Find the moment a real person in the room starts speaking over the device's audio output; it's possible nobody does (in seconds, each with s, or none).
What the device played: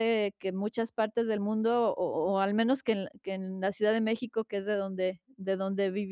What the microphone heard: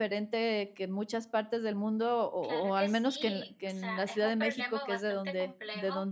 2.4 s